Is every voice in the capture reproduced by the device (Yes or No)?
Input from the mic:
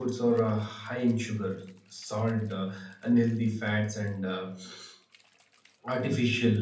Yes